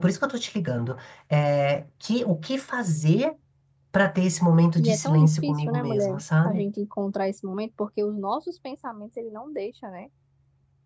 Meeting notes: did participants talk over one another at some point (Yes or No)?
Yes